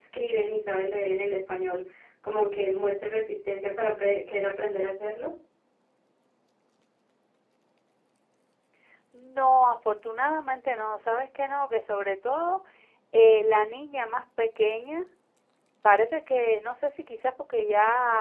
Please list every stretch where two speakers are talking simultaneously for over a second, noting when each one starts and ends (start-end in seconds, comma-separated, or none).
none